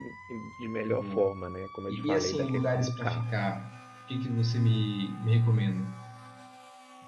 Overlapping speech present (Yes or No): Yes